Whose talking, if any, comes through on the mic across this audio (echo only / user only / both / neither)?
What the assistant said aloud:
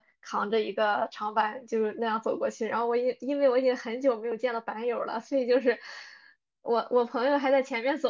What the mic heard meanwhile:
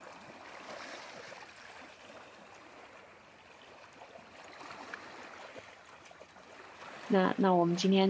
user only